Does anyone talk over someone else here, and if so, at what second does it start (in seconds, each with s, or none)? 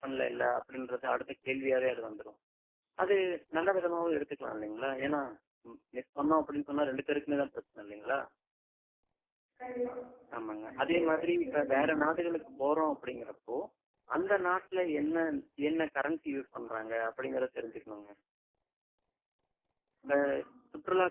10.7 s